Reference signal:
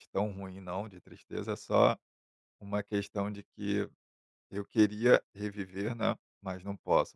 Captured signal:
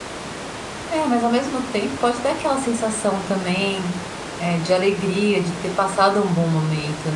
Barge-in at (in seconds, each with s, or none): 0.9 s